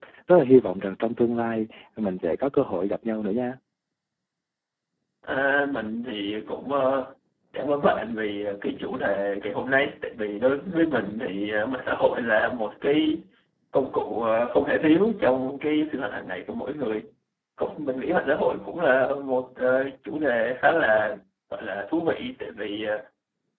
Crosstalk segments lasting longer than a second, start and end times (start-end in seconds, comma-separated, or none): none